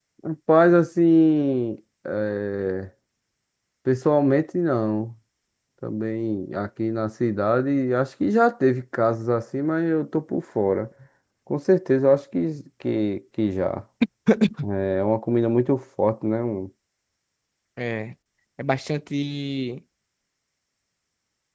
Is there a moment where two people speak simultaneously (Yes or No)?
No